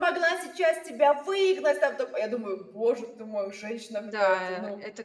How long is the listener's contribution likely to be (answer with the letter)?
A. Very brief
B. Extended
B